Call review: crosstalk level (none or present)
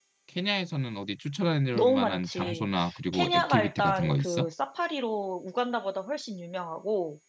present